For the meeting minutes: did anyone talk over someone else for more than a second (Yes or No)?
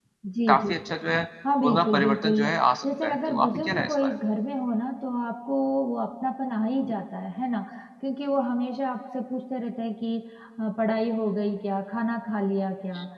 Yes